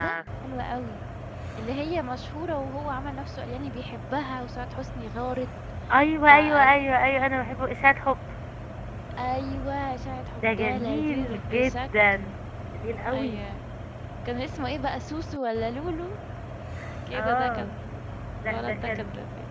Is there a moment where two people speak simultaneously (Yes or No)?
Yes